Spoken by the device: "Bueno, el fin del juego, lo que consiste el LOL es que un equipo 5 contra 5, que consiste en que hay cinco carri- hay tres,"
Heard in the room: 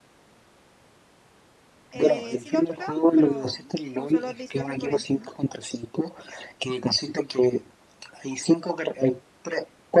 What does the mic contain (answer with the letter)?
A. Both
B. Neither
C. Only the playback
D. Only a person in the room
A